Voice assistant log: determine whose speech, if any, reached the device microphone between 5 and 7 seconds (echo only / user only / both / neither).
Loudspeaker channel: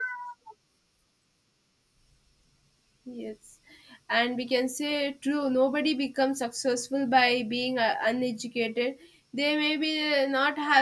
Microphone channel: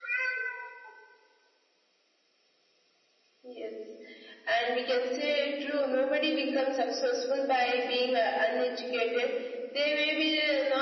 echo only